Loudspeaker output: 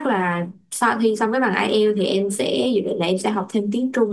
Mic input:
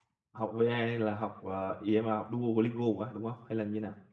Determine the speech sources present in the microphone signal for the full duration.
user only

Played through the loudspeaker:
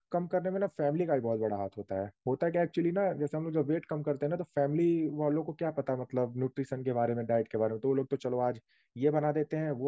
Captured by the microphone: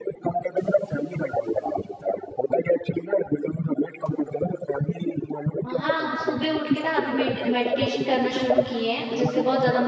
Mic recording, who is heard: both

